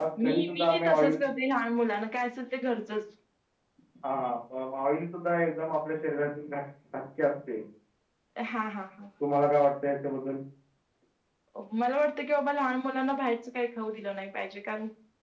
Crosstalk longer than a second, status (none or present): none